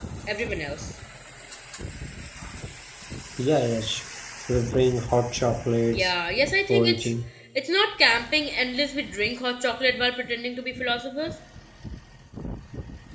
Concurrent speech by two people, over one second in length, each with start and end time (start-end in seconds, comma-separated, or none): none